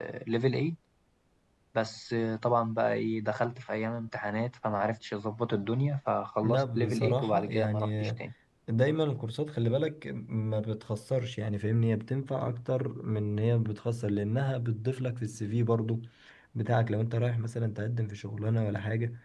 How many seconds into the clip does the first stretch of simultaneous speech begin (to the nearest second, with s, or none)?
6 s